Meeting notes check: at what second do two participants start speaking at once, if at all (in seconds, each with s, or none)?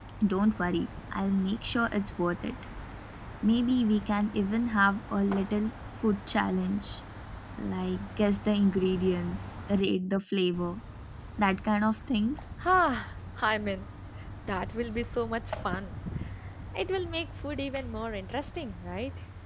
none